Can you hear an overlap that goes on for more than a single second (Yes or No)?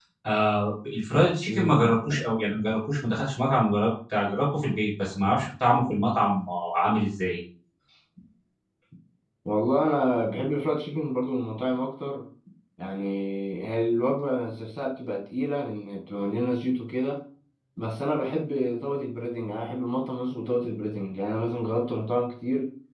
No